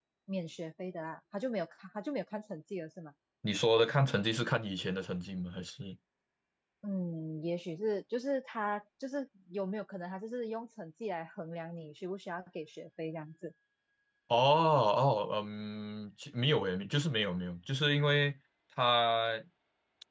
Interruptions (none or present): none